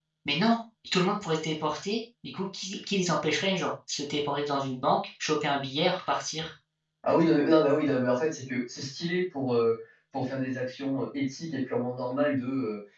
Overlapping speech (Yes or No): No